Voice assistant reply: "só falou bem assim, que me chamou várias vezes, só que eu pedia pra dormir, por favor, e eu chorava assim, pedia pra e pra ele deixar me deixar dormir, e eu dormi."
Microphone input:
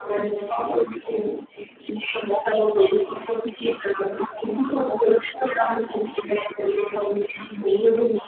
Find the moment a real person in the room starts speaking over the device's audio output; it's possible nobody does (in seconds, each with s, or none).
none